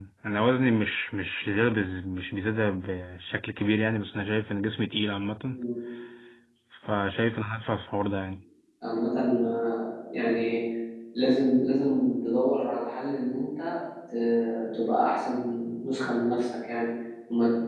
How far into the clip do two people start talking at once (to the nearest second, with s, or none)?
none